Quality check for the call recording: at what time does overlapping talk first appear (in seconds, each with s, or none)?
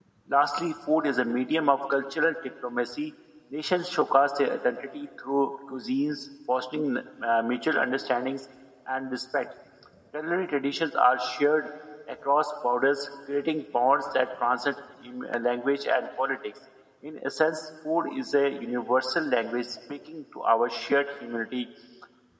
none